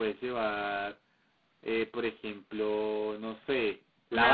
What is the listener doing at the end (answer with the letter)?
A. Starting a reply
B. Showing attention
B